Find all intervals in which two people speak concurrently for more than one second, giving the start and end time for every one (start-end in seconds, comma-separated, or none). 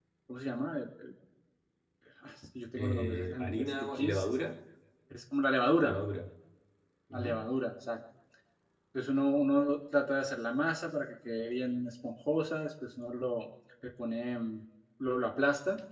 2.8-4.2